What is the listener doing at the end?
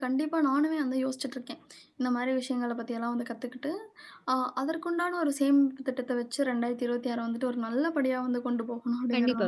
taking over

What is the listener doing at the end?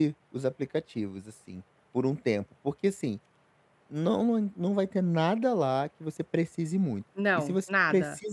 listening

